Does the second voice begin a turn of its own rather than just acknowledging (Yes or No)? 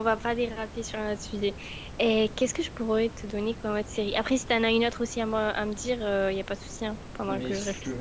Yes